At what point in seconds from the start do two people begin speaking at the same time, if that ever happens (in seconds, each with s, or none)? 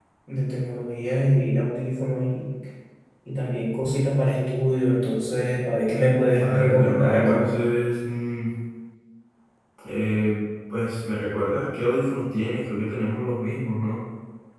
6.3 s